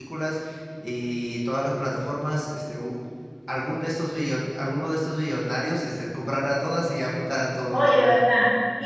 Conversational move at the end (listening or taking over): taking over